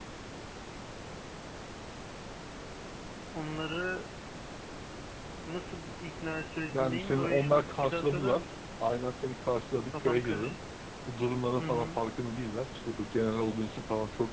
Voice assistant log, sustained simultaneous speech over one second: present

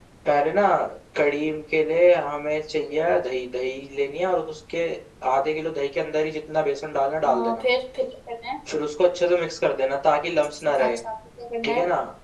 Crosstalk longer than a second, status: none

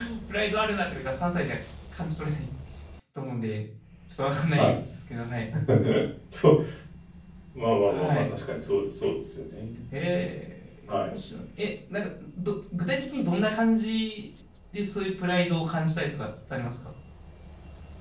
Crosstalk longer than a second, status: none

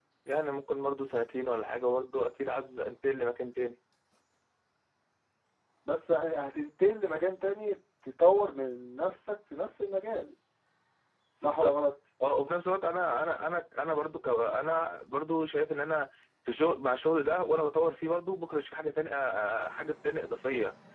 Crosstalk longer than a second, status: none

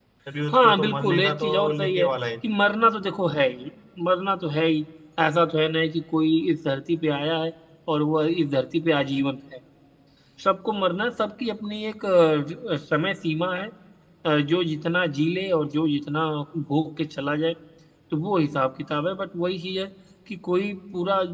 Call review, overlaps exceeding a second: present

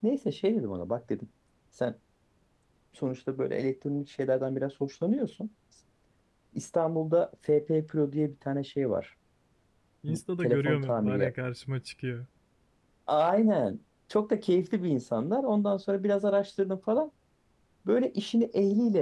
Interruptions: present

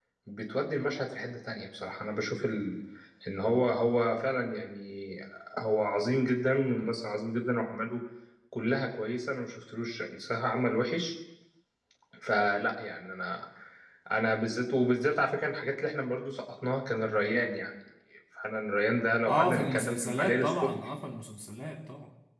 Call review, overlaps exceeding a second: present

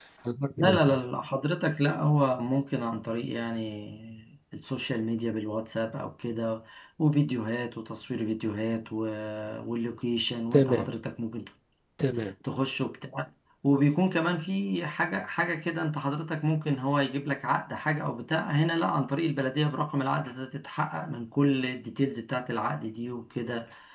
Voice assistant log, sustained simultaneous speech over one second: none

